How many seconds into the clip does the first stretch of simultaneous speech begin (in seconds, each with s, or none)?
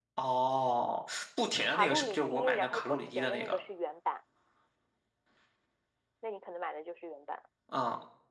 1.7 s